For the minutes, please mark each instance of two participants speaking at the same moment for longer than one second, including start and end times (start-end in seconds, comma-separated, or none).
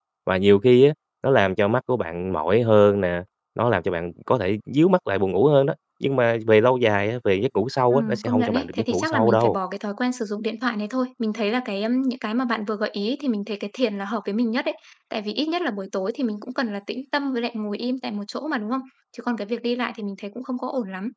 7.9-9.6